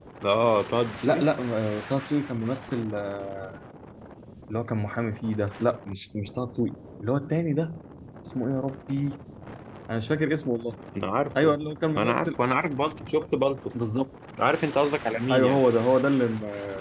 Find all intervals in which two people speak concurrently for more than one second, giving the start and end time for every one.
none

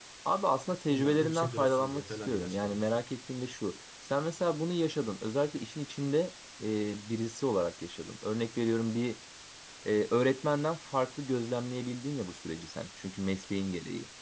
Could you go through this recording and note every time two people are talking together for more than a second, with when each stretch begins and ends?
0.7-3.0

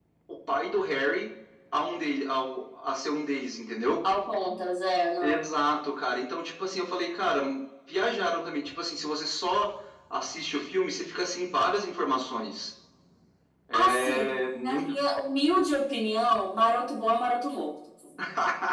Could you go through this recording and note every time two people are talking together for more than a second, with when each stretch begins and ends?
13.7-14.9

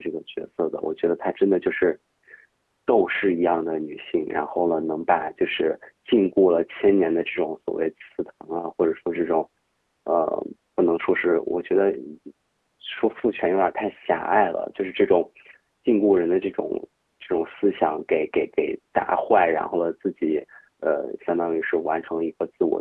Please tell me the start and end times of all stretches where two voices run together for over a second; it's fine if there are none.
none

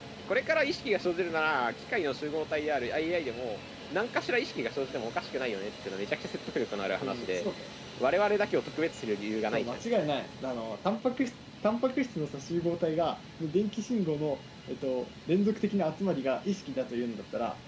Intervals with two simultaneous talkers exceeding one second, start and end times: none

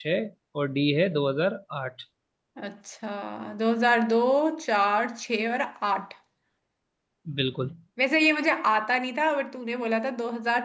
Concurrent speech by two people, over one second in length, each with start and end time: none

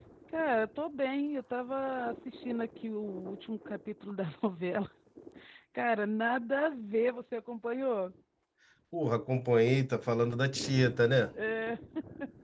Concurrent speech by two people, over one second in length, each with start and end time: none

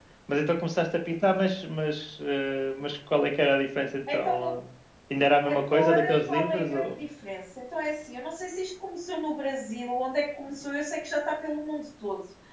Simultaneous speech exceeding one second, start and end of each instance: 5.5-7.0

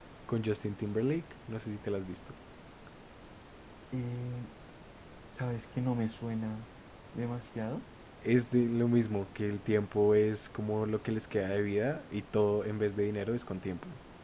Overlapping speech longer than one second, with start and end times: none

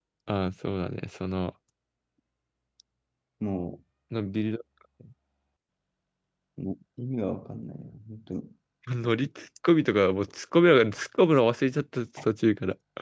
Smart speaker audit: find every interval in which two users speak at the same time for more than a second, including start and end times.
none

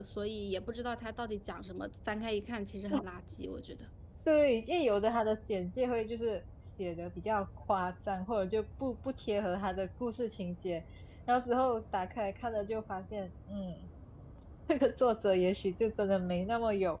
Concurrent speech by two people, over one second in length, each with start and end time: none

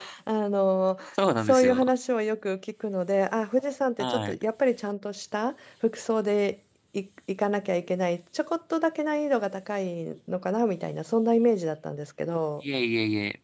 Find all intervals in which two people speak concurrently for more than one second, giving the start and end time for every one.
none

